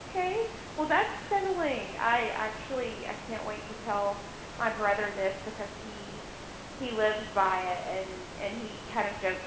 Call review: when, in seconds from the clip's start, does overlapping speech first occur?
none

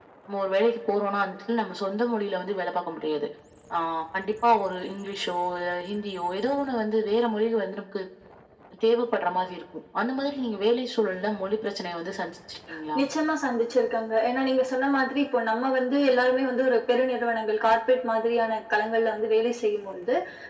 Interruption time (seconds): none

